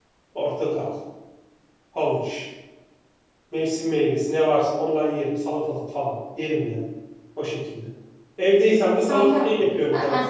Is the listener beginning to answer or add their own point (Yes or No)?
Yes